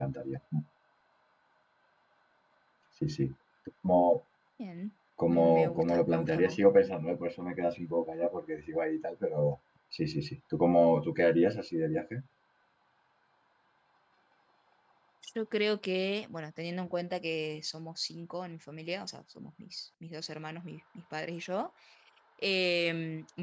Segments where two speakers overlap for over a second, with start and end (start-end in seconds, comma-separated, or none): 5.3-6.6